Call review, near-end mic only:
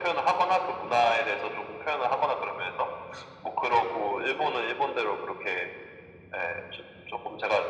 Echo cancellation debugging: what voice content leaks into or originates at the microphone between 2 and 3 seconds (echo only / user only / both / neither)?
echo only